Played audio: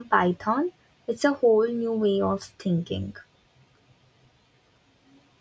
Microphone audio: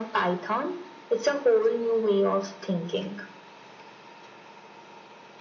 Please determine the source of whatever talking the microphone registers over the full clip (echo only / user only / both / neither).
echo only